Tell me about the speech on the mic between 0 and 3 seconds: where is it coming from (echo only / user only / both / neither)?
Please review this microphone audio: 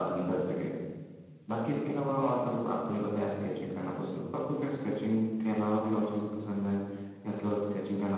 echo only